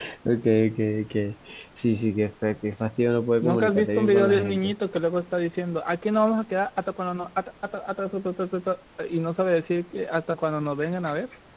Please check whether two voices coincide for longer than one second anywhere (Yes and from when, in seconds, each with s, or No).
Yes, from 3.4 s